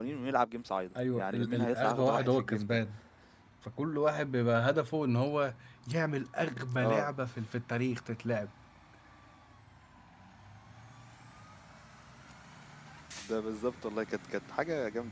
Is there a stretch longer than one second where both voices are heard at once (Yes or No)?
Yes